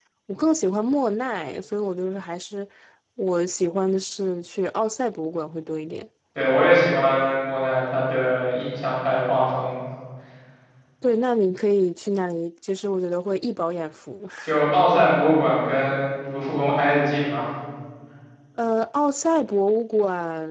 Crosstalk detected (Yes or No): No